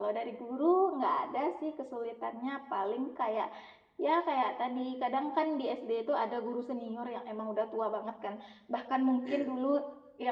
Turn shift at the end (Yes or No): No